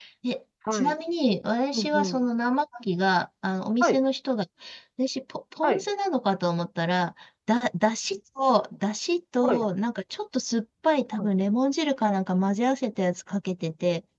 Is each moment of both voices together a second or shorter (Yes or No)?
Yes